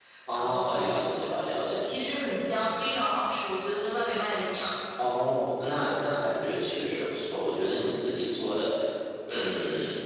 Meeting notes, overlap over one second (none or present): none